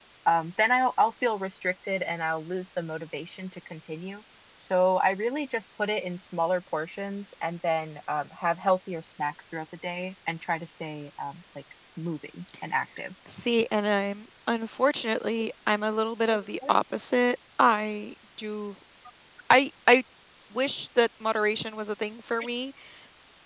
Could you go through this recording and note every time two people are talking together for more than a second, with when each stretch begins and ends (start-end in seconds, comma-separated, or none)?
none